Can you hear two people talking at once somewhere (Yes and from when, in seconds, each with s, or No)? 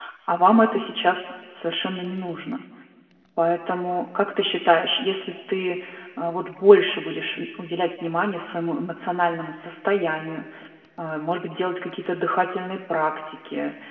No